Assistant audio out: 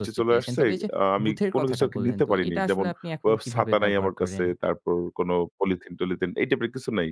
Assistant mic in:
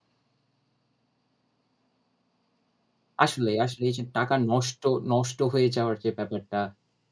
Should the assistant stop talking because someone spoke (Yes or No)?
Yes